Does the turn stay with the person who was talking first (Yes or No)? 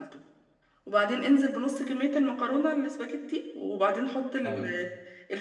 Yes